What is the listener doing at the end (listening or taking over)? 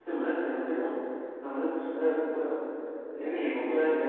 listening